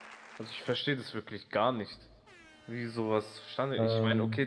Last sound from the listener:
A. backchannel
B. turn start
A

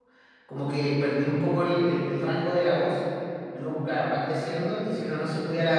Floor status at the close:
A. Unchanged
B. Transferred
A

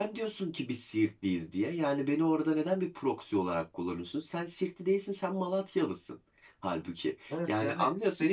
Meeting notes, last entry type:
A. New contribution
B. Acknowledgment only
A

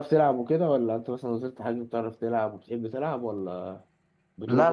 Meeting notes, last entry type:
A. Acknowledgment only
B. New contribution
B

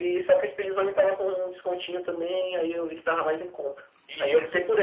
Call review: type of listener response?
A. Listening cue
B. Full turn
A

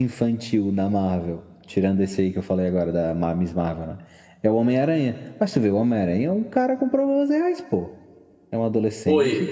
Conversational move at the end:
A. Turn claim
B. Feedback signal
B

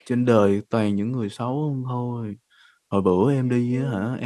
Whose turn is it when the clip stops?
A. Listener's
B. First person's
B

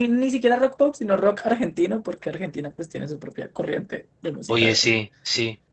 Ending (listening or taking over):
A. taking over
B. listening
A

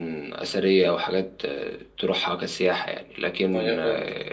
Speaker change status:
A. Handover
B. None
B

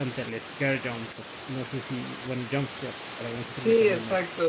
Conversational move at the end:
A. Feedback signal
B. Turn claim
B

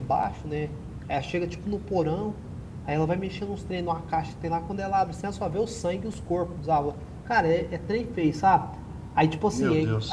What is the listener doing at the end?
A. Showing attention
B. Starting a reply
A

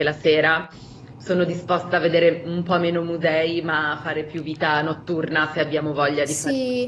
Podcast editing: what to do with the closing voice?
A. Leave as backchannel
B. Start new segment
B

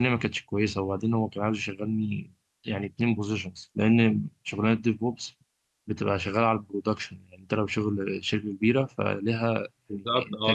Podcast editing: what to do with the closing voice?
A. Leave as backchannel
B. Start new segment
B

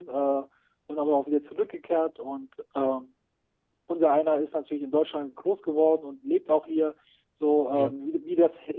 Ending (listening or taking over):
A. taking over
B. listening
B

